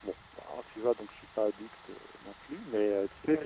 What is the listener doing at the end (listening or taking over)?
taking over